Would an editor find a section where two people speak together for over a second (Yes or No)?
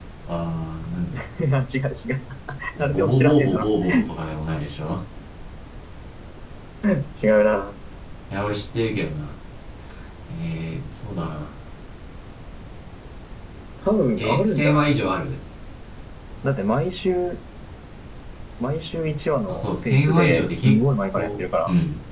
Yes